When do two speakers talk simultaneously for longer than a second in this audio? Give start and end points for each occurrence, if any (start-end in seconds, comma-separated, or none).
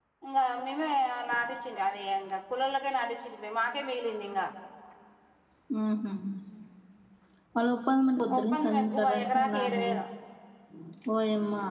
8.4-9.8